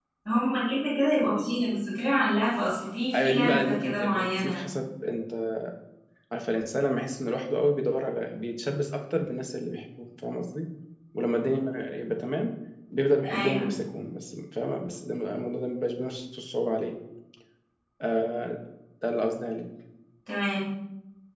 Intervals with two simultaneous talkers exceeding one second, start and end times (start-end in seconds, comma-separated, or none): 3.1-4.6